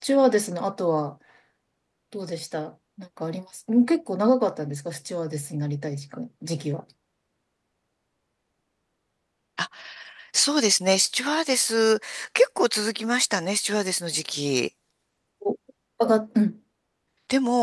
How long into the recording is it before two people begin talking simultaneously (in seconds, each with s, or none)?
none